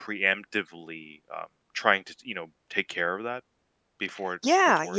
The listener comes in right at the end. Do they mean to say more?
Yes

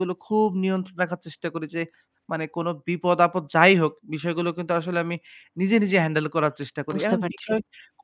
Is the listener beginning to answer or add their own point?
No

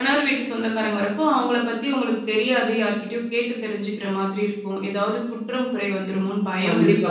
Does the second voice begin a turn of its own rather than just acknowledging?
Yes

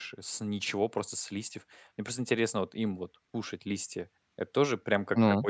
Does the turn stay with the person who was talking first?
Yes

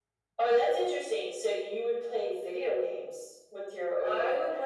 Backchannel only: No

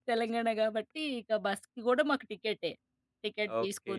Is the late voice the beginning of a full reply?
Yes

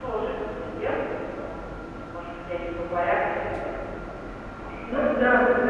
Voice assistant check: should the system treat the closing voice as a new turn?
Yes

